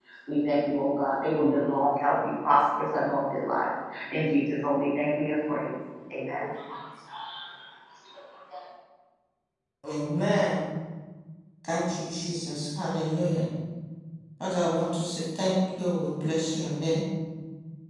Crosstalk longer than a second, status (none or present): none